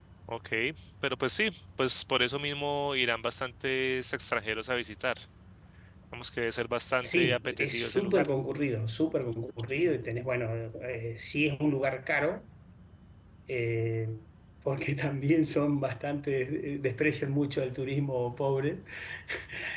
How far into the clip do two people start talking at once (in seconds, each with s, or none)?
7.0 s